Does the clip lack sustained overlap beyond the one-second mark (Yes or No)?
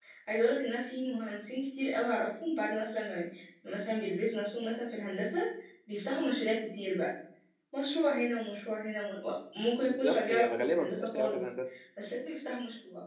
No